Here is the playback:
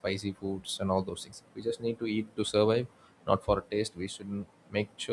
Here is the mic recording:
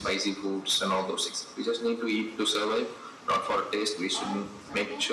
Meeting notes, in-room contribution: present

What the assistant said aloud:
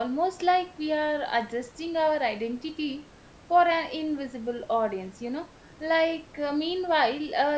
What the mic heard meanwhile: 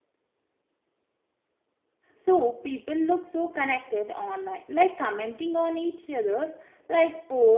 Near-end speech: present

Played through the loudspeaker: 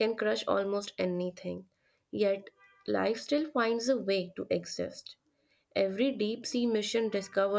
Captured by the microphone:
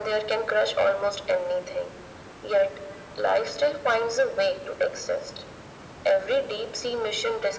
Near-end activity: none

